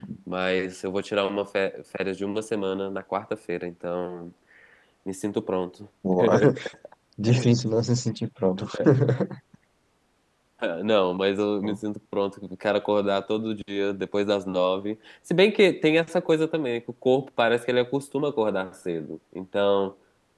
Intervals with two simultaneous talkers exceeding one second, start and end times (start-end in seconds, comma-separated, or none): none